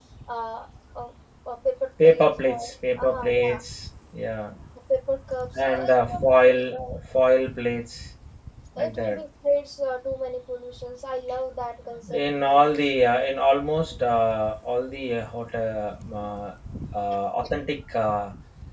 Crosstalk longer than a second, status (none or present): present